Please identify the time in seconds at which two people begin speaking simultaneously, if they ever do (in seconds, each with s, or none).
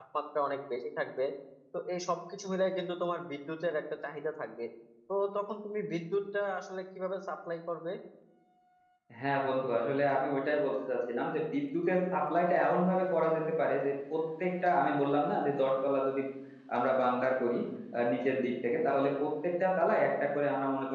none